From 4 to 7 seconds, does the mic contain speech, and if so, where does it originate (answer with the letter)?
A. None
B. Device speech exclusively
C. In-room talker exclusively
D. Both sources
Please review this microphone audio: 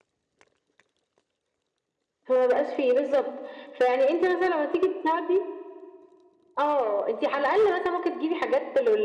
B